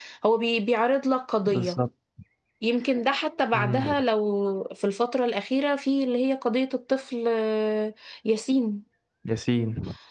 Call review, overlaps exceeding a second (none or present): none